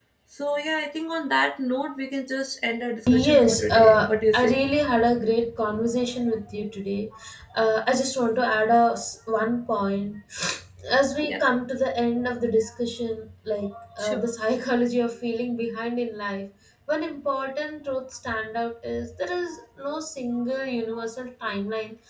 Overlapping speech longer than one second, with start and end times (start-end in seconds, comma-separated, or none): 3.1-4.6